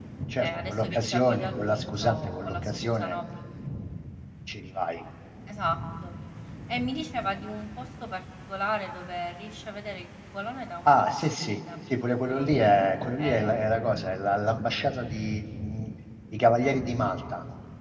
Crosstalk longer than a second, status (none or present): present